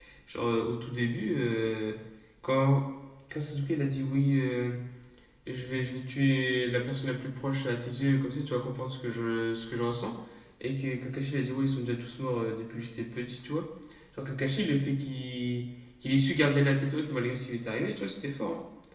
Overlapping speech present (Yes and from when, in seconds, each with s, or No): No